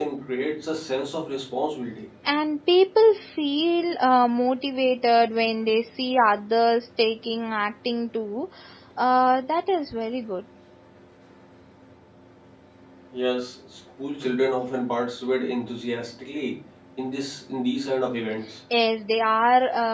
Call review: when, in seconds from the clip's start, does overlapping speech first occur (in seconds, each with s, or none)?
none